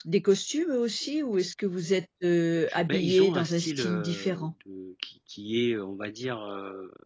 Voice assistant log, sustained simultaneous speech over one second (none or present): present